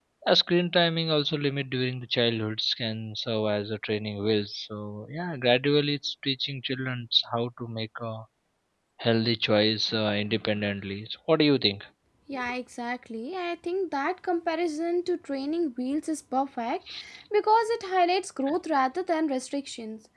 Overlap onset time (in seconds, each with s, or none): none